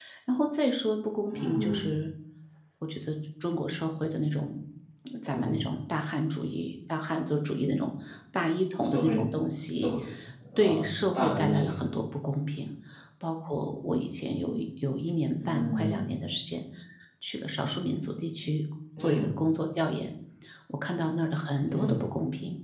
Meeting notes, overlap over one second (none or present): present